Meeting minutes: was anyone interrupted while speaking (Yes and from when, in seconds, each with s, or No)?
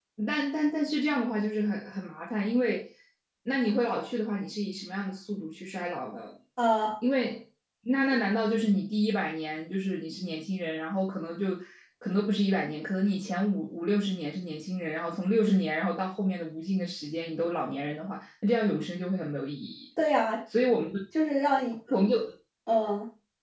No